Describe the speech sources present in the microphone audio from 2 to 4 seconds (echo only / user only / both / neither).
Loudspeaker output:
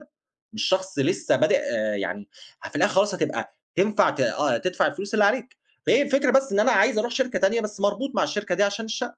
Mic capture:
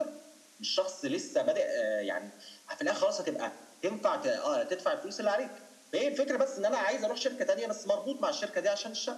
echo only